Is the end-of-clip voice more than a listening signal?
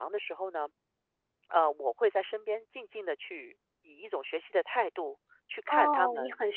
Yes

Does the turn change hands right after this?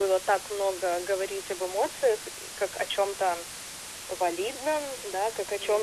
No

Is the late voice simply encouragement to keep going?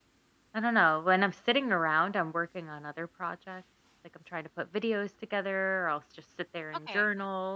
Yes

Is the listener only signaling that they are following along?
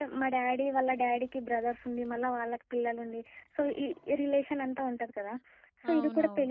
Yes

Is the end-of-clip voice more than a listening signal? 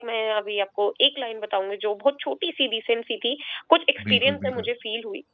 No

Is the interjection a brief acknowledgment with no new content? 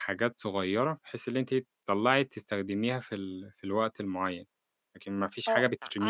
No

